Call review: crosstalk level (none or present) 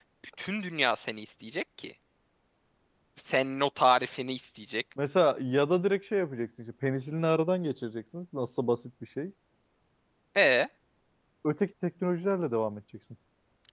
none